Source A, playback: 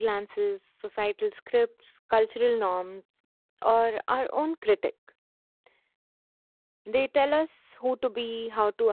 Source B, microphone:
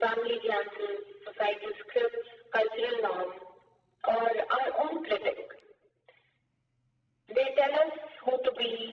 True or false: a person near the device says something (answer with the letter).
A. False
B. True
A